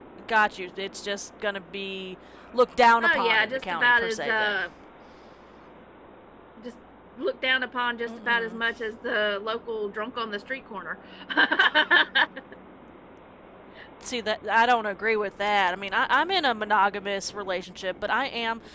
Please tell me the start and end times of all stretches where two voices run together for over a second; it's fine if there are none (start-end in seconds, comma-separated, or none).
3.0-4.5